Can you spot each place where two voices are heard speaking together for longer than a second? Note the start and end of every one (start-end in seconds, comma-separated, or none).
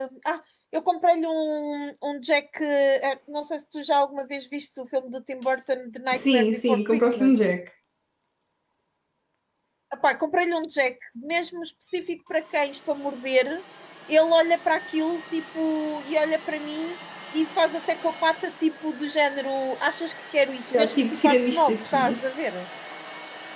6.1-7.4, 20.7-22.2